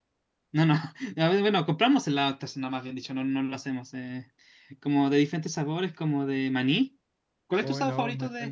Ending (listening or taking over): taking over